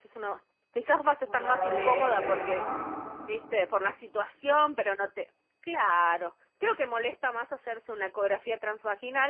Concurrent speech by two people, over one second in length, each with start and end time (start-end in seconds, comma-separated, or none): 1.2-2.6